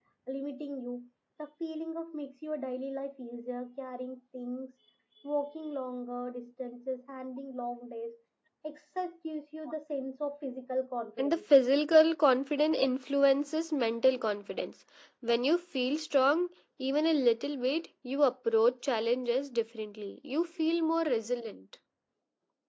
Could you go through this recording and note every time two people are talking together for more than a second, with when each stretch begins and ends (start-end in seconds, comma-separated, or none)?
none